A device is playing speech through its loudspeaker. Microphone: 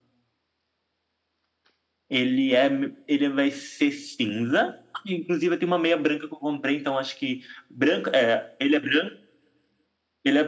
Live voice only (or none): none